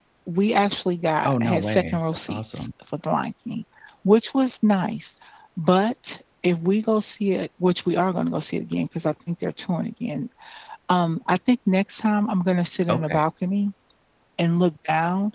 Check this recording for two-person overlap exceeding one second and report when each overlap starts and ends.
1.2-2.7

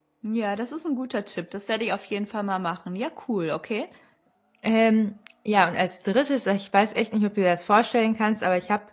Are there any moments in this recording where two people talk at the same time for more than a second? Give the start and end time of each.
none

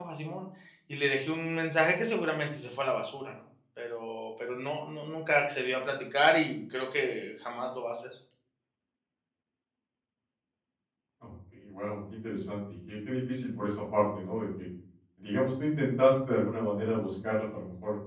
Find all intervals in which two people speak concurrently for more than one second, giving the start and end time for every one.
none

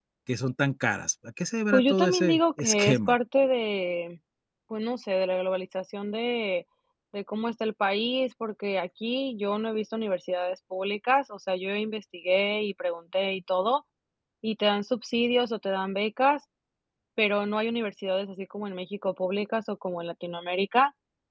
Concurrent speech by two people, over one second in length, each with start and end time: 1.7-3.1

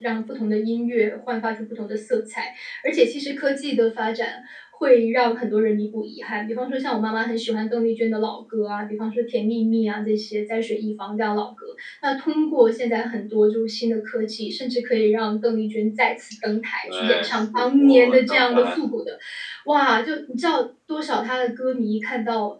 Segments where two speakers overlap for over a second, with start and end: 16.8-18.8

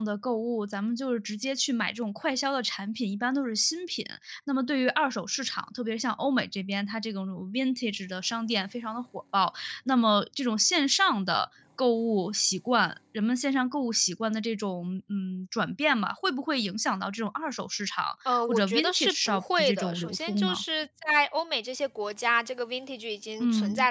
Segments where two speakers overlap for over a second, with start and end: 18.5-20.6

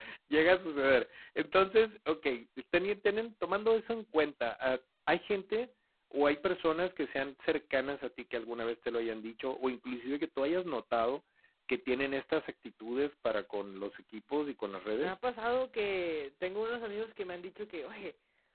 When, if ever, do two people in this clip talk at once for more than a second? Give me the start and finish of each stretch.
none

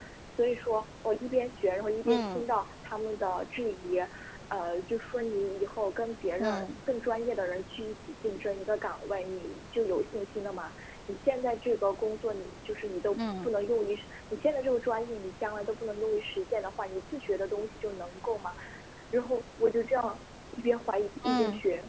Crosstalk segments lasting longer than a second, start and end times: none

